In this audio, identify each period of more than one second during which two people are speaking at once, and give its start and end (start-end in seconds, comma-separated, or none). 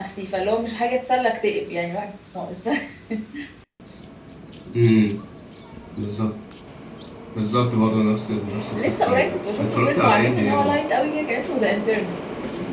8.8-10.8